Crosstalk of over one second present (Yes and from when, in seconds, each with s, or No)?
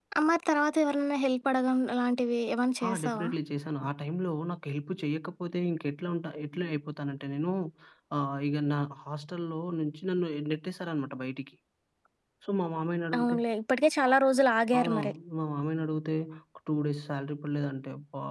No